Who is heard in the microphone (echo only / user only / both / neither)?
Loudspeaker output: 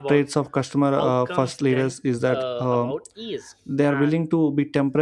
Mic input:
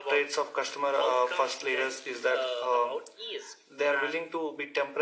echo only